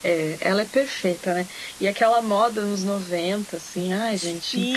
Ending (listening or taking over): taking over